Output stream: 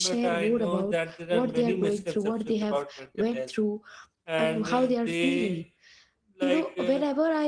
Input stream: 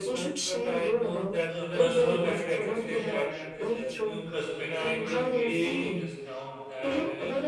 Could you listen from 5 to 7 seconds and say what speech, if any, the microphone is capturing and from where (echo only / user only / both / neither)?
both